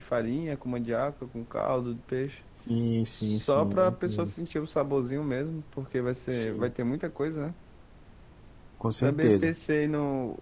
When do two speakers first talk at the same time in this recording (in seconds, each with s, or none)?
3.1 s